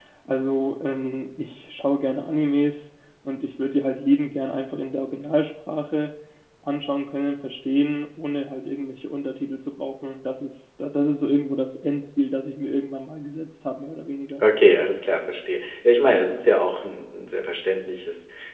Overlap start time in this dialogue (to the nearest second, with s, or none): none